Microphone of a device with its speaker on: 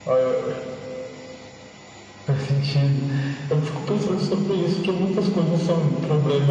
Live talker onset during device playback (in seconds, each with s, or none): none